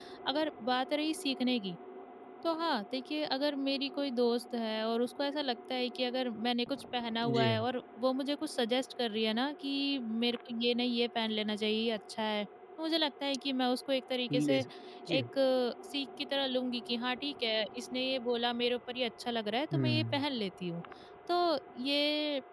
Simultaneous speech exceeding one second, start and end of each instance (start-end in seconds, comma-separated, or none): none